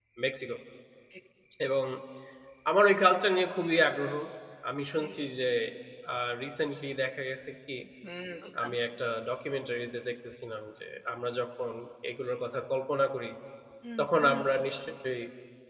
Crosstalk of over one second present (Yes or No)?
No